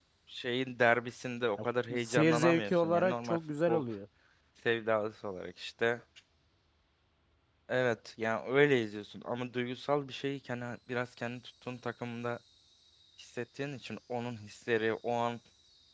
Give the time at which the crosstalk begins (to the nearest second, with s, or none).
2 s